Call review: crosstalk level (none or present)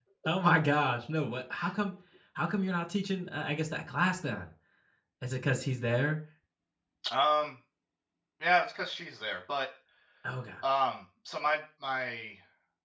none